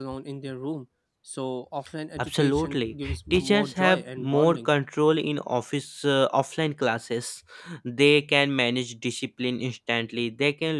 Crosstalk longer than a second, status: present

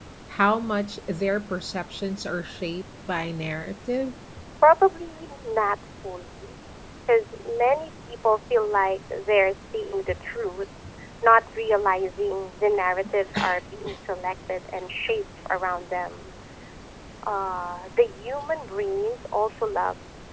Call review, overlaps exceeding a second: none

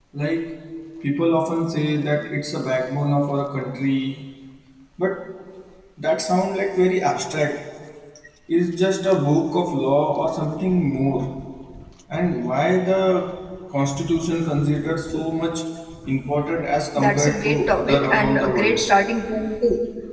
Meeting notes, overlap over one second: present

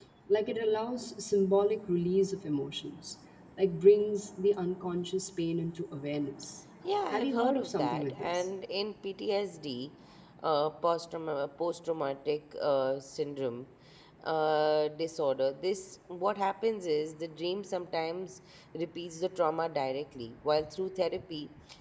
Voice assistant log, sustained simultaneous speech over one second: present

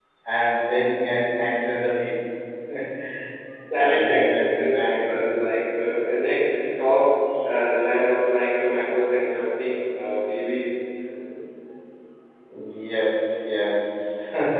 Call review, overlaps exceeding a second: present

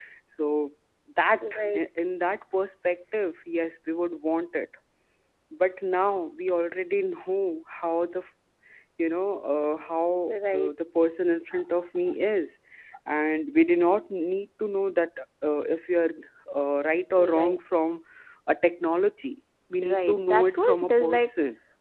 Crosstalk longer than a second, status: present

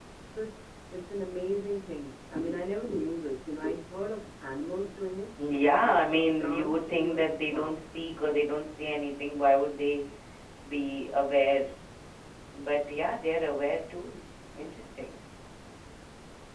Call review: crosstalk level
present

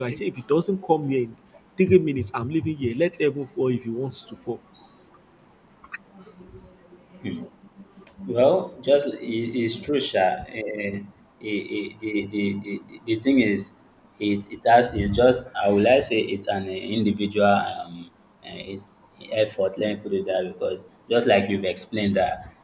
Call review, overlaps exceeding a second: none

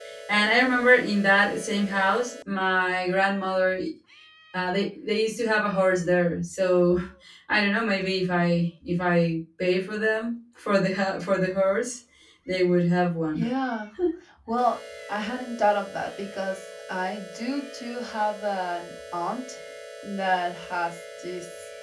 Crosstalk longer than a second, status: none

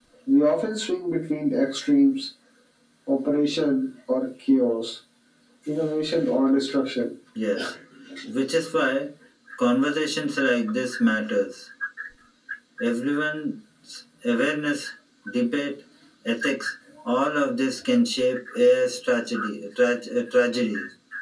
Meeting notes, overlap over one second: none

